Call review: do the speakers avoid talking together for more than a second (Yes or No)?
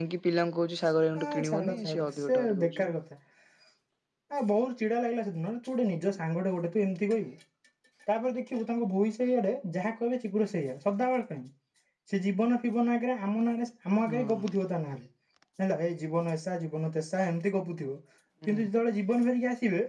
No